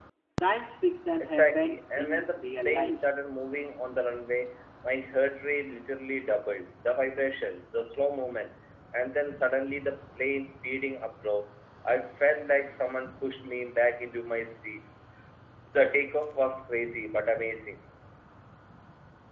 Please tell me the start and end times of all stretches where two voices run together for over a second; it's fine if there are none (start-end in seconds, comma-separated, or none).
1.2-3.0